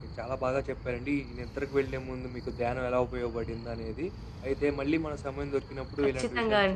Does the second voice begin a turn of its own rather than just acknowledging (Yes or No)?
No